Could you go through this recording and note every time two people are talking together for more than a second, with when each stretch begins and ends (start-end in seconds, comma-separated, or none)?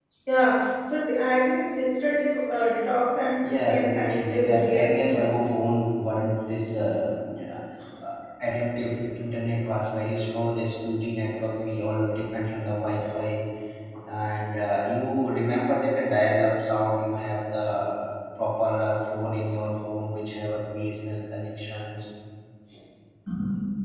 3.5-5.3